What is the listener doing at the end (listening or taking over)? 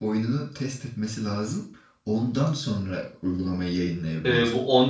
taking over